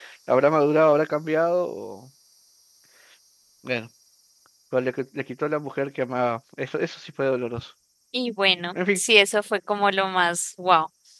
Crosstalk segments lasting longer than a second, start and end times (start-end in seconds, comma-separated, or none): none